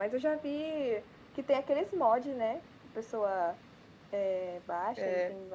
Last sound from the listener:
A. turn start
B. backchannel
B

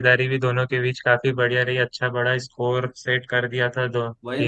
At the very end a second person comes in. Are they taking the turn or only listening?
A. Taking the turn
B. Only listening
A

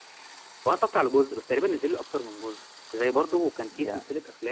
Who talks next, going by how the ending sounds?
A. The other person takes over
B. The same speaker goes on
B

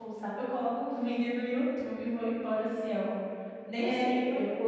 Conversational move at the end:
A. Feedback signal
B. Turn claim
B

